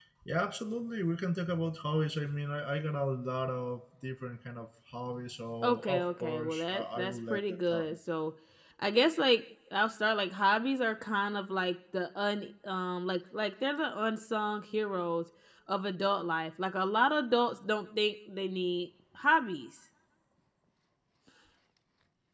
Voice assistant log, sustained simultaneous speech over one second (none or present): present